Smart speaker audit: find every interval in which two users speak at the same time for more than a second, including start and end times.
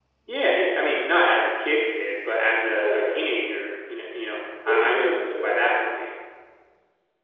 4.7-5.9

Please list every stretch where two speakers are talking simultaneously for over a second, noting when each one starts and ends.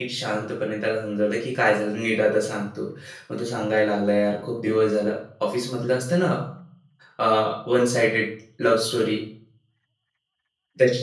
none

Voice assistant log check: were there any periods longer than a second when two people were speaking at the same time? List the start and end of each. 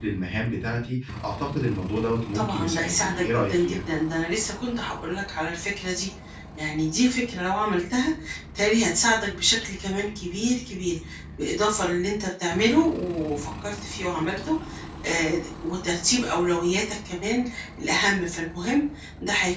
2.4-3.8

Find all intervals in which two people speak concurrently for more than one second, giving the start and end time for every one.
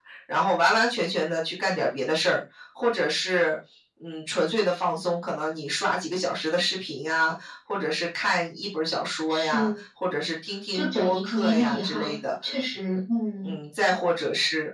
10.7-12.1

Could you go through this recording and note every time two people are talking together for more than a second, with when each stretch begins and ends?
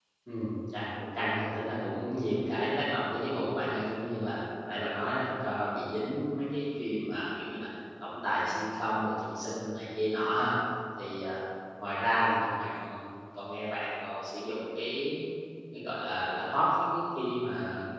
none

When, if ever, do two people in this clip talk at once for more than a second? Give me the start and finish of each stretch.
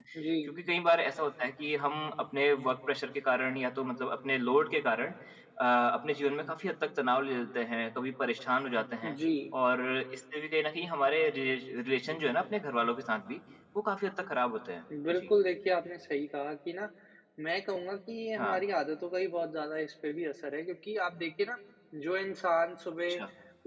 none

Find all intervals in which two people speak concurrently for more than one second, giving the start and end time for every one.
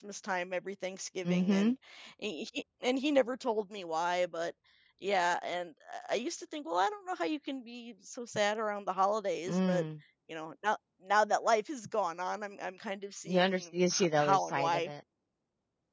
13.3-14.9

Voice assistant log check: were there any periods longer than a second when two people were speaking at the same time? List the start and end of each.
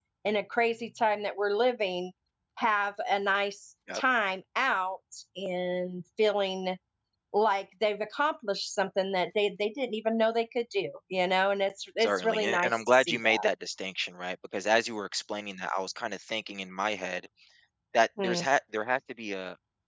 12.0-13.2

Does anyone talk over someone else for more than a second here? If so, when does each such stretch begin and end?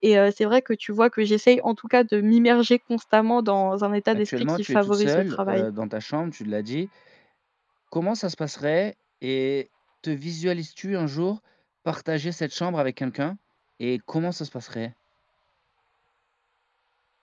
4.1-5.7

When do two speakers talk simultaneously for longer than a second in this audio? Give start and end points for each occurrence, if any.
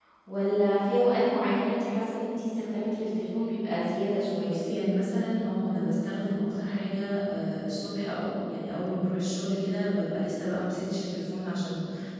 none

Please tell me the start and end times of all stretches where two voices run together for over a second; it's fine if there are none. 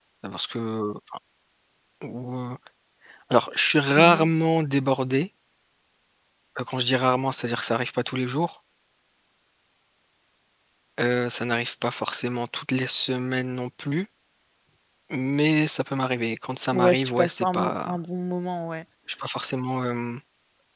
16.7-18.0

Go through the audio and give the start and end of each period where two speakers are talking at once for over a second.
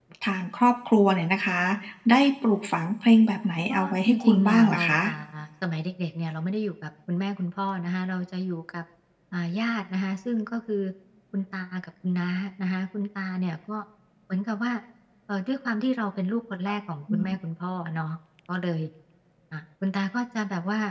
3.7-5.0

